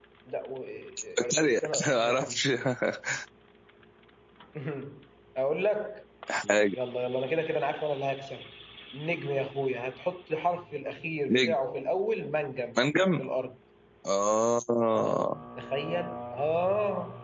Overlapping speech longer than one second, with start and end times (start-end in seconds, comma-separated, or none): 1.2-2.4